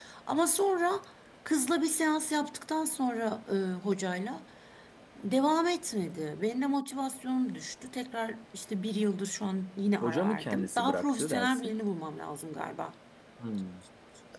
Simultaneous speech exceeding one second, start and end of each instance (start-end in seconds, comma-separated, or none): 10.0-11.8